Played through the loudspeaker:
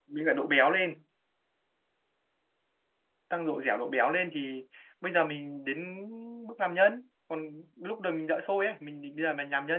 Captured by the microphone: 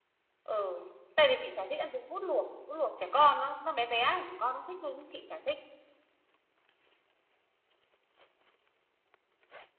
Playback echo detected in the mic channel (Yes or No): No